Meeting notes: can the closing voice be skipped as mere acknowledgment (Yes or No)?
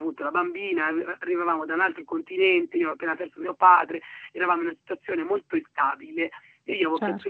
Yes